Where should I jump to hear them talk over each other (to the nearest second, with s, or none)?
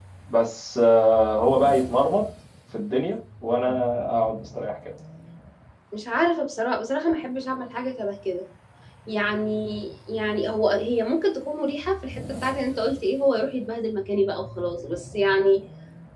none